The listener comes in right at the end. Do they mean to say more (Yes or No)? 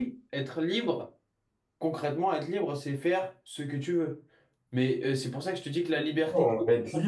Yes